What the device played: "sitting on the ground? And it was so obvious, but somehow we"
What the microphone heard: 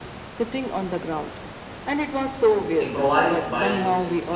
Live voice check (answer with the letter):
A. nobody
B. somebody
B